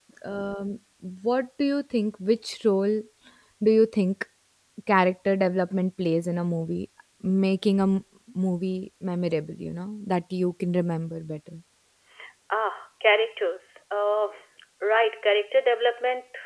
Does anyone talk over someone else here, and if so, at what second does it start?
none

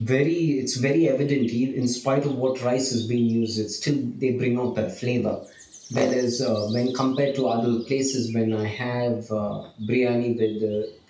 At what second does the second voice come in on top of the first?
none

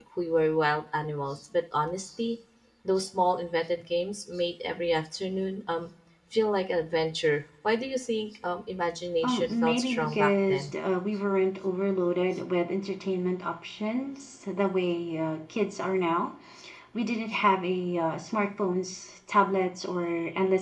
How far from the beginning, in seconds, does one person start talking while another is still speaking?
9.2 s

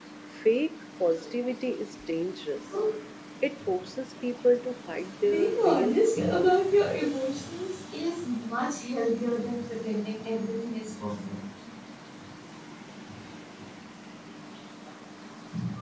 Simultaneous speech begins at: 5.2 s

